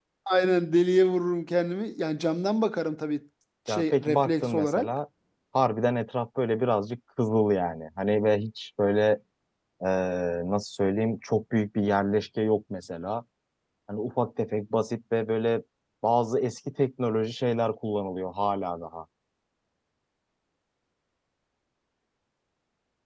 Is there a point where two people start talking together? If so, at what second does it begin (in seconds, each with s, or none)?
3.7 s